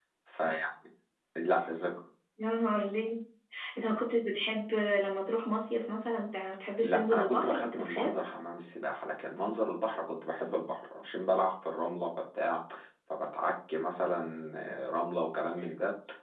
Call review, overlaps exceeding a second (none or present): present